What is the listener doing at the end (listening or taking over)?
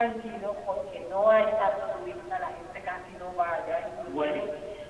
listening